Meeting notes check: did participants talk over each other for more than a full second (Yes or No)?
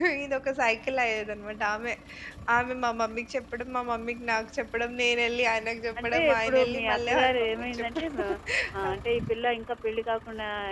Yes